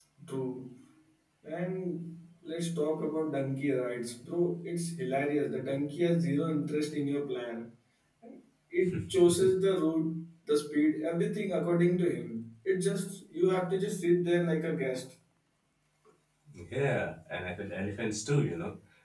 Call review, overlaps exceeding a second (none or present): none